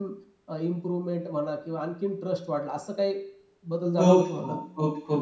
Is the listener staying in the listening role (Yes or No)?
No